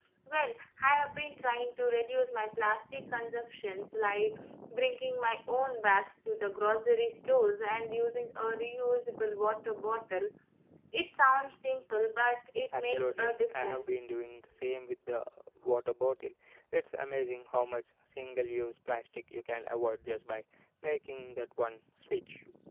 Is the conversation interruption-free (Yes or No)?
No